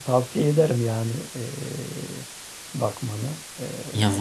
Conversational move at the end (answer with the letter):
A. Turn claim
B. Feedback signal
A